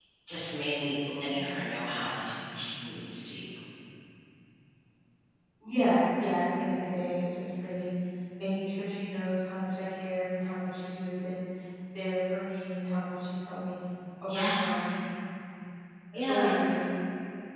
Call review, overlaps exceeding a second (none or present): none